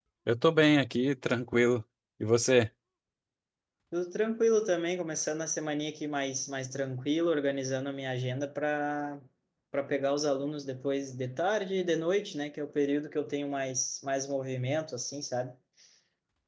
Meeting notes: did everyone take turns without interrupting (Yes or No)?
Yes